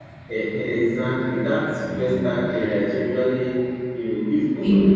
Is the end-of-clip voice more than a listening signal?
No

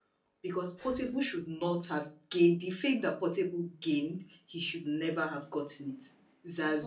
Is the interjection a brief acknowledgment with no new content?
Yes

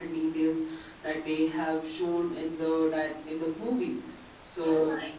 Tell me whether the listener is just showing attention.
No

